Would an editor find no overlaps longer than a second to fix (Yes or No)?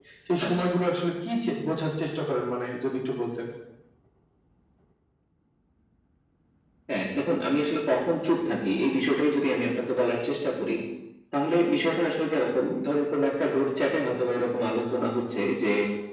Yes